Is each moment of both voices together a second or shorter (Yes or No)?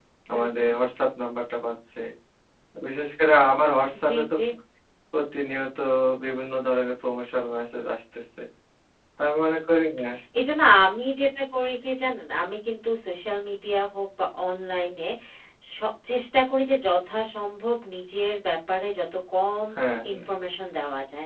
Yes